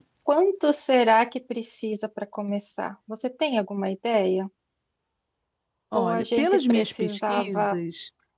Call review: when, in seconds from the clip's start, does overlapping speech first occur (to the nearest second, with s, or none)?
6 s